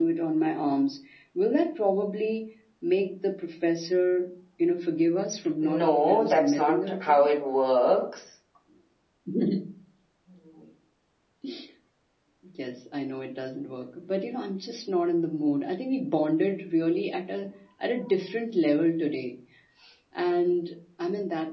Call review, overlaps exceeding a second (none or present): present